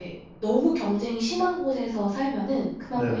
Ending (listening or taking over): listening